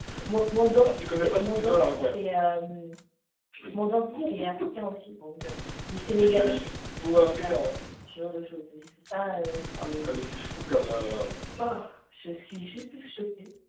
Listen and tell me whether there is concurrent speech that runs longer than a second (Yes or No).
Yes